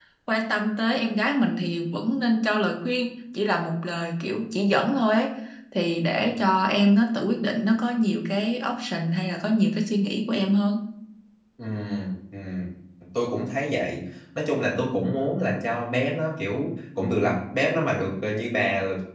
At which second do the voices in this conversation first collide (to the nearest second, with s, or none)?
none